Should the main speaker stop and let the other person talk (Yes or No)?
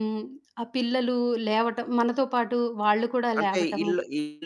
Yes